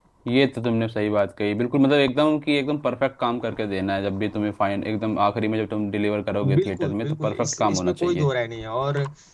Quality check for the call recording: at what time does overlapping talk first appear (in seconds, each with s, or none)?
6.4 s